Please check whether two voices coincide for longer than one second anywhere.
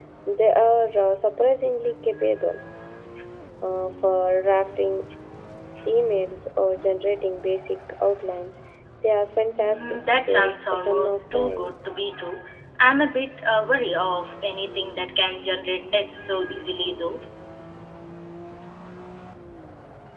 Yes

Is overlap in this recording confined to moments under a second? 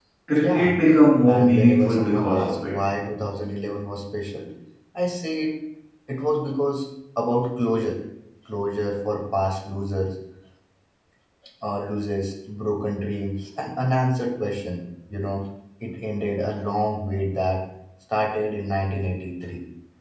No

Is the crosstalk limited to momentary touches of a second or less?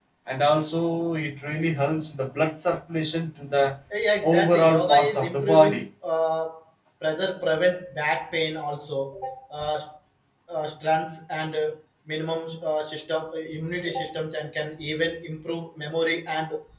No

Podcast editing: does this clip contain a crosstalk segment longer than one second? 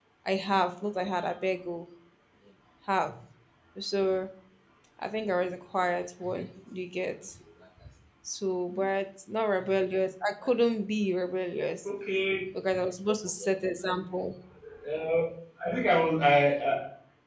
No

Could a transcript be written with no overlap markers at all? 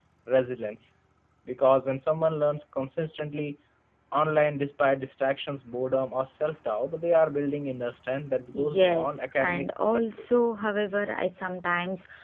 No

